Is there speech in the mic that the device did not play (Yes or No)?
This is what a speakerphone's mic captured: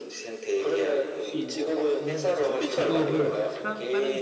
Yes